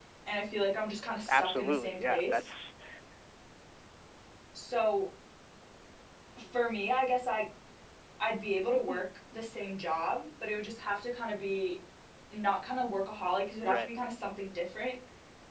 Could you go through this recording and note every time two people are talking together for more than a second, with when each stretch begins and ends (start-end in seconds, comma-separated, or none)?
1.3-2.5